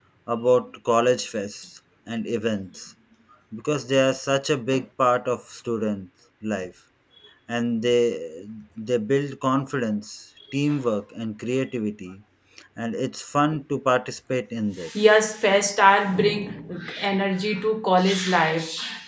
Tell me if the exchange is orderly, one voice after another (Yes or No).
Yes